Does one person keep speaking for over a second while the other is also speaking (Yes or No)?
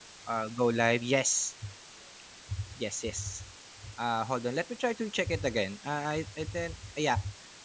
No